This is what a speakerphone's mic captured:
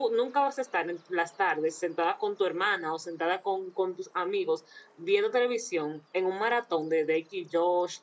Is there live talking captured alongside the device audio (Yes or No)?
Yes